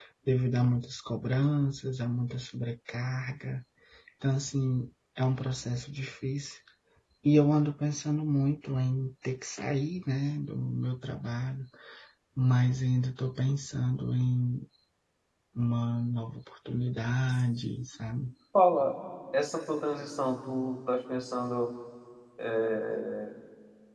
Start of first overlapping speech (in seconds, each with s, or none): none